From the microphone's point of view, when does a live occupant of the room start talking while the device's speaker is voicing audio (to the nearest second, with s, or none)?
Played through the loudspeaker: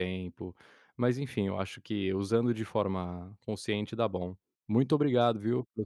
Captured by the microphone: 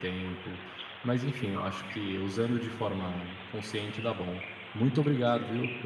none